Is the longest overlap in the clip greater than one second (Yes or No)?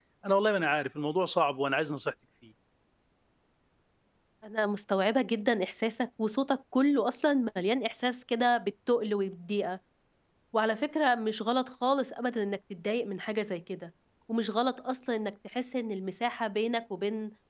No